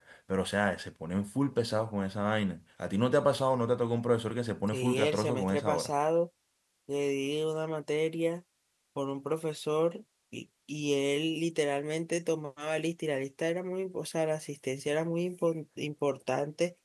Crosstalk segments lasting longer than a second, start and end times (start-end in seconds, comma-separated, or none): 4.7-5.9